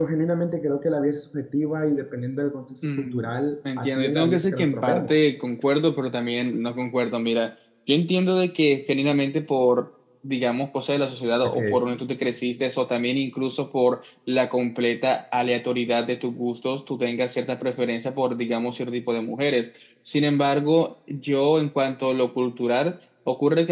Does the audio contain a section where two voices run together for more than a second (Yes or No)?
Yes